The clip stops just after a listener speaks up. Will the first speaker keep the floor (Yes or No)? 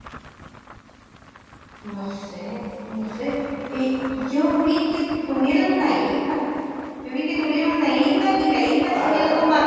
Yes